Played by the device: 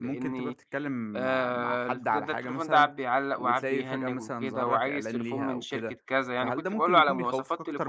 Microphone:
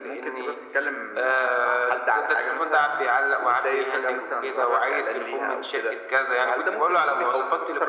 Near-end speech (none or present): none